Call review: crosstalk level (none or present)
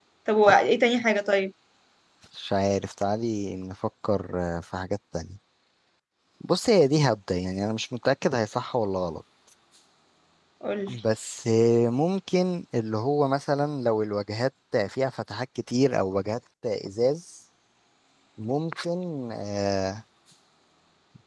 none